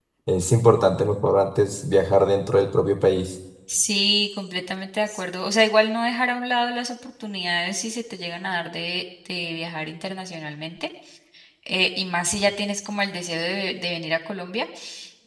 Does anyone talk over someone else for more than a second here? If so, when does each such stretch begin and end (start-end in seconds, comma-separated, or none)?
none